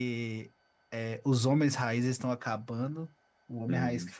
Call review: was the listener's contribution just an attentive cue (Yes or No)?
Yes